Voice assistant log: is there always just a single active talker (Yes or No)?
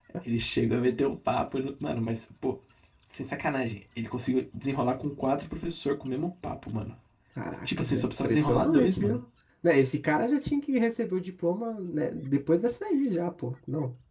No